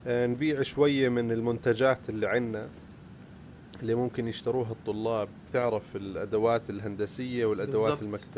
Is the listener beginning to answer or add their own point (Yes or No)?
No